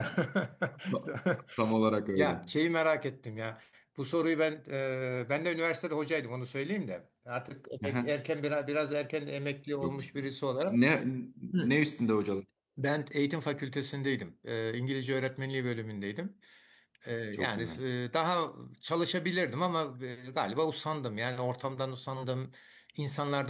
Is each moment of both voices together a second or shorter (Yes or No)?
Yes